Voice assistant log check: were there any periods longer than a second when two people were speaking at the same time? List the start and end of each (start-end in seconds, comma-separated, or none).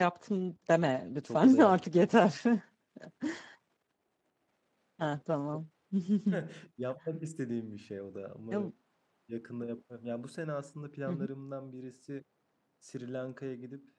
none